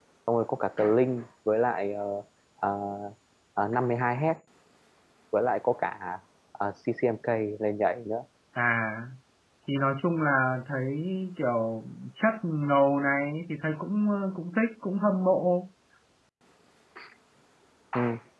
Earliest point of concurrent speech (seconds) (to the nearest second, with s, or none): none